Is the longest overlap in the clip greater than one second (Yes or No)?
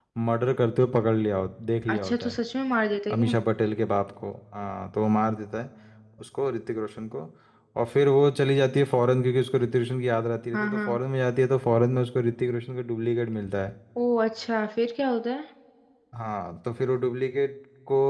No